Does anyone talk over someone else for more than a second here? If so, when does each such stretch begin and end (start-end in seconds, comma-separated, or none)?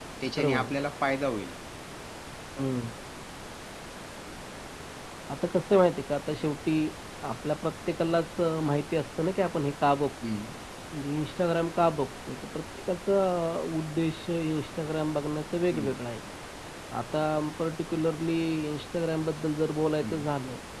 none